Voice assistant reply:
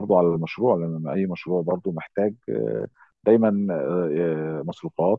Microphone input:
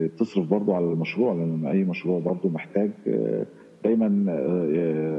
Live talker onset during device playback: none

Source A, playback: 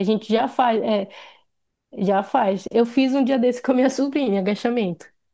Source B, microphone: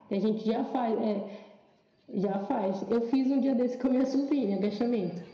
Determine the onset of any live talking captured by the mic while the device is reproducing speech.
none

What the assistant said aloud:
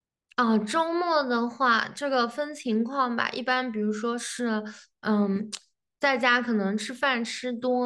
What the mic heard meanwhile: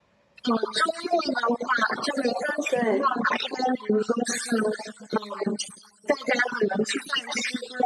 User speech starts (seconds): 2.7 s

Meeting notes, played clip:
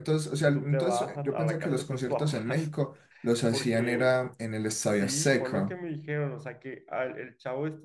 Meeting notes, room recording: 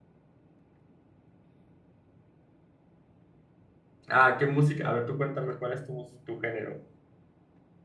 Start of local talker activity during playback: 4.1 s

